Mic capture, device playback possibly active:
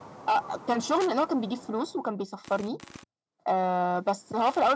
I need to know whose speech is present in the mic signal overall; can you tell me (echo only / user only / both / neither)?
echo only